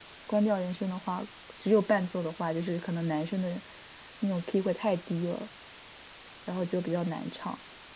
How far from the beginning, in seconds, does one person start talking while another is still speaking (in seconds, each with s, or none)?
none